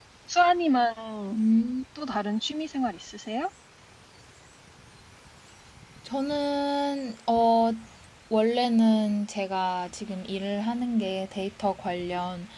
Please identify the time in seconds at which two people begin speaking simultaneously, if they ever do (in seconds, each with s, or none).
none